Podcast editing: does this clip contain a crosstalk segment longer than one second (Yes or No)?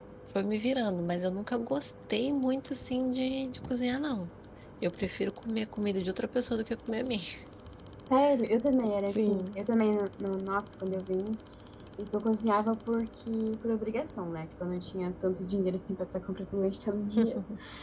No